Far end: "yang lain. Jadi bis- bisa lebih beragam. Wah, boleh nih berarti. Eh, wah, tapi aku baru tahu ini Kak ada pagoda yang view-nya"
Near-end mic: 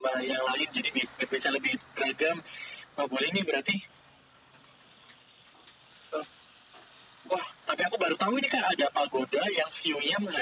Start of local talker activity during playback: none

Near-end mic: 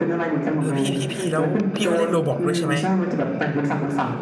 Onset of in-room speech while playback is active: 0.6 s

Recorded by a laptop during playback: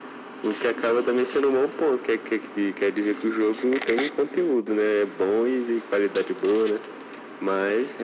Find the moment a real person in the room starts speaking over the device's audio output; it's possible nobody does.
none

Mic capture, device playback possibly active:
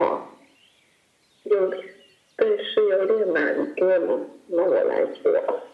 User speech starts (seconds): none

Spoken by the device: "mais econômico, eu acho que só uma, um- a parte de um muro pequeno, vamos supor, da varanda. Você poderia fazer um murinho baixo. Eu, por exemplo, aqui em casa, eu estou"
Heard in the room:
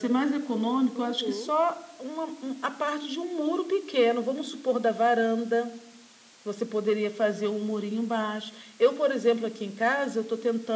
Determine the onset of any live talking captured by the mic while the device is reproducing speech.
0.9 s

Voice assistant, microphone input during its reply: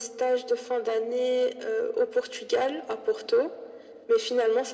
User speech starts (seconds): none

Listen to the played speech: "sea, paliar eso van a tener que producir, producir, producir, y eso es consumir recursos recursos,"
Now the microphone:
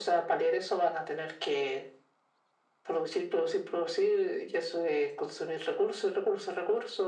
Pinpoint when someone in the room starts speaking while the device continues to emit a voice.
none

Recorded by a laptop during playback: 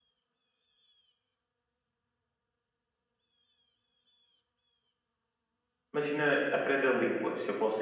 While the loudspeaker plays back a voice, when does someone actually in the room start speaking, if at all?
5.9 s

